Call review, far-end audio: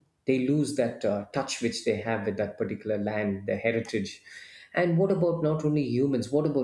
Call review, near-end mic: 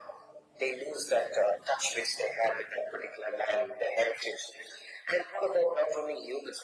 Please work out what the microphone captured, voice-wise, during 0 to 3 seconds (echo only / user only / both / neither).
echo only